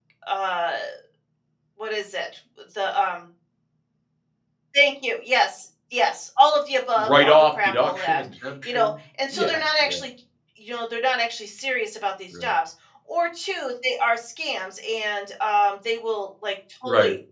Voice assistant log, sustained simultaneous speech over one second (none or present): present